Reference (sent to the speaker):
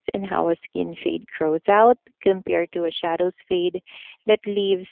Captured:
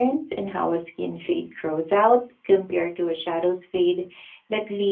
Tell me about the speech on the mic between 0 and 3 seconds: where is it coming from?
echo only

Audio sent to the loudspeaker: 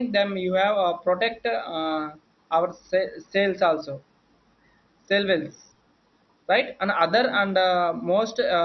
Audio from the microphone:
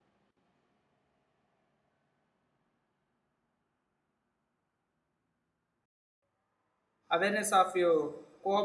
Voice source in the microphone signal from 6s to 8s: user only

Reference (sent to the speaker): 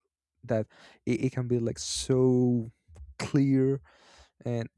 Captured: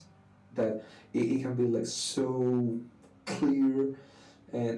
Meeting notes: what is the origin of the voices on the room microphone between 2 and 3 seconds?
echo only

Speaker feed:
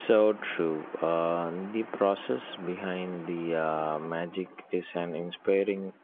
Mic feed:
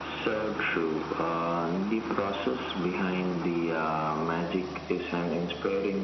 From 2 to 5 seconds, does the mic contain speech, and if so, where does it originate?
echo only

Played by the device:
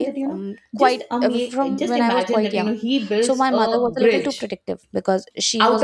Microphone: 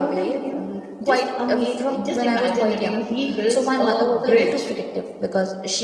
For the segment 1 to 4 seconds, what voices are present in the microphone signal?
echo only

